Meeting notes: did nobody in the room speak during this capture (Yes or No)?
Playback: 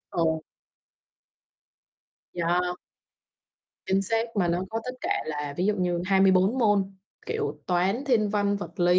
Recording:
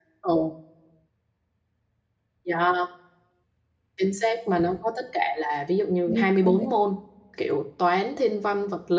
No